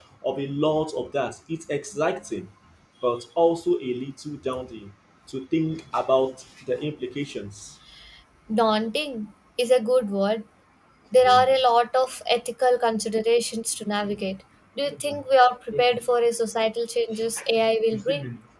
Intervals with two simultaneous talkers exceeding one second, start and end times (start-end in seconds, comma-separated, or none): none